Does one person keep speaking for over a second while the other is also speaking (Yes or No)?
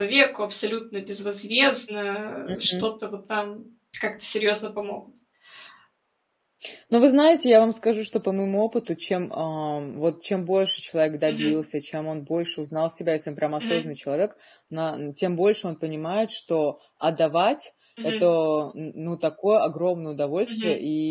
No